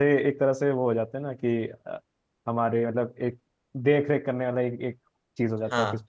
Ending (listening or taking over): taking over